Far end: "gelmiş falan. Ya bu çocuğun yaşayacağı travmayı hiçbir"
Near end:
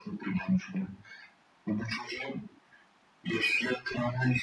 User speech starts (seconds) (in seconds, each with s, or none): none